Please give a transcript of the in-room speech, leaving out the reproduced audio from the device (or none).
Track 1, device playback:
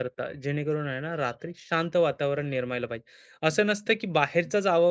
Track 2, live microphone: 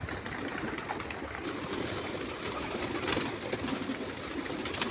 none